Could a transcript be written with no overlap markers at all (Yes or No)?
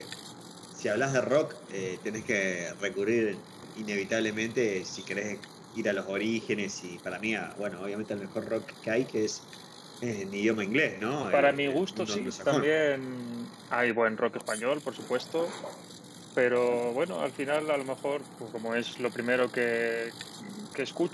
No